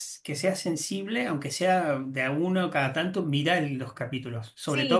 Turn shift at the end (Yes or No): No